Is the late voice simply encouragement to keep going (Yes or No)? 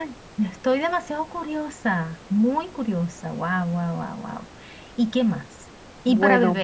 Yes